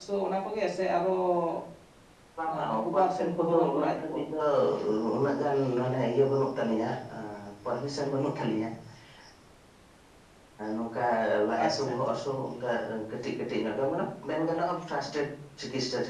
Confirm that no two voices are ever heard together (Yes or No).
No